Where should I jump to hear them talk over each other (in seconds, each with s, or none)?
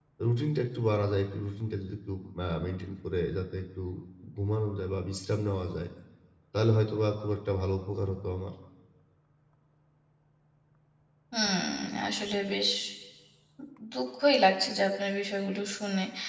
none